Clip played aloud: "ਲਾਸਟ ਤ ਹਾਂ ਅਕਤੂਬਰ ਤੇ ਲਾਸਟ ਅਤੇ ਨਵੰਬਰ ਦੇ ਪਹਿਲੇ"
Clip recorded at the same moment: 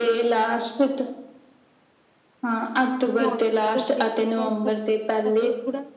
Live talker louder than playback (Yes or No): No